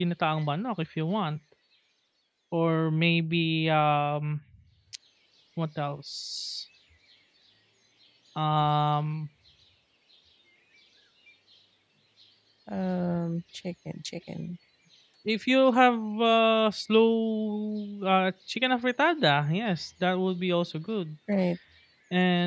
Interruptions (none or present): none